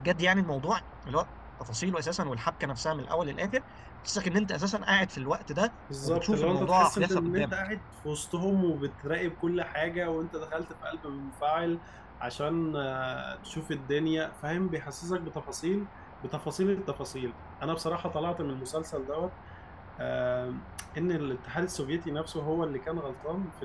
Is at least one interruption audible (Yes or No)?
Yes